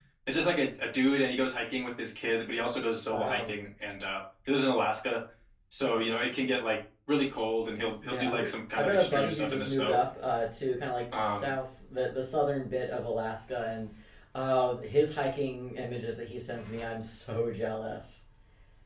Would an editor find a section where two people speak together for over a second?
Yes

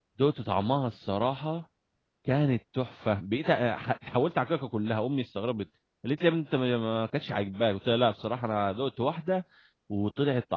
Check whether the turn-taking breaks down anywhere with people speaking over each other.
No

